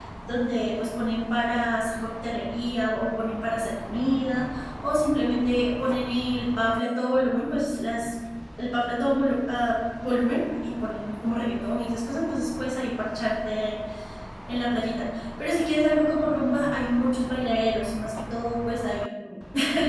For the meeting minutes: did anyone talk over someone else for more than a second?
No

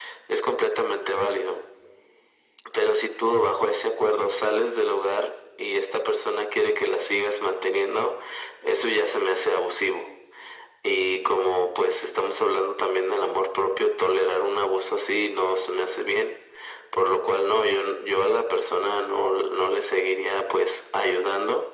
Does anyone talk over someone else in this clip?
No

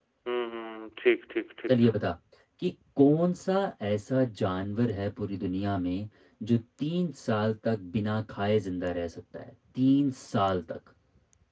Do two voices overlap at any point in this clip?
No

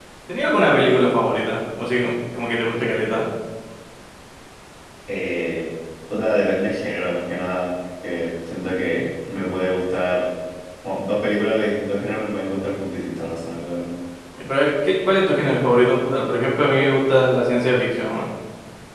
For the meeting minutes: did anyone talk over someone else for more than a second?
No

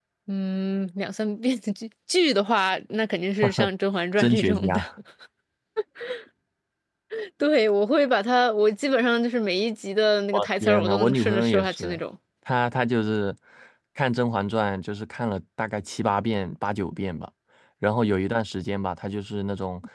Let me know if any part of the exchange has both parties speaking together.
Yes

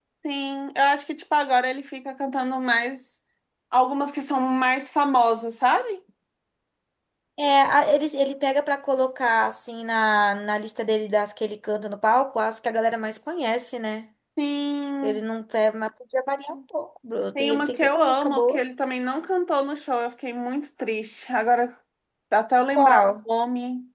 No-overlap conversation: No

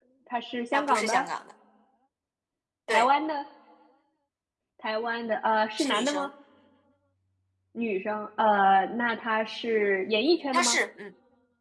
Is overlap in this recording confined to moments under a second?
Yes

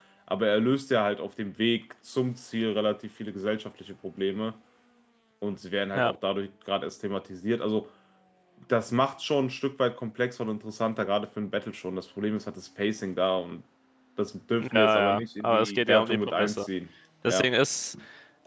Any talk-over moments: Yes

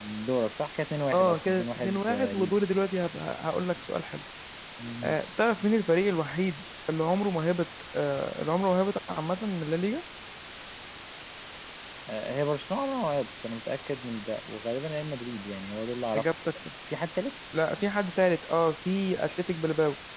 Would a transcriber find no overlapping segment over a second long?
No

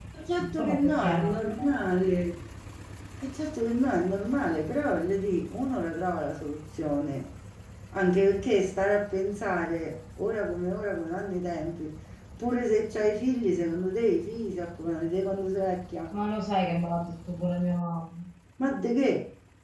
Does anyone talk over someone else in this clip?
Yes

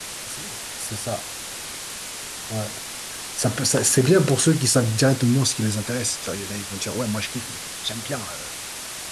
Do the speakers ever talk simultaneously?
No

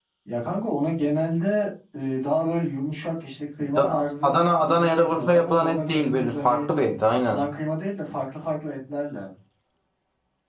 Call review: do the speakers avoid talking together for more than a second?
No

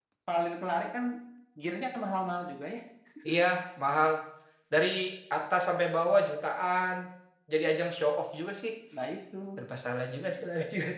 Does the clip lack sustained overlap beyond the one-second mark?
Yes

